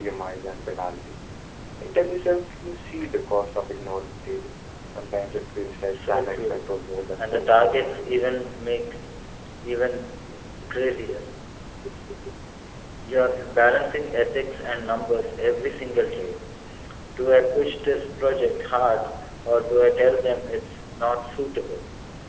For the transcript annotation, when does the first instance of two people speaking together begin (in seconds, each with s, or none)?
5.9 s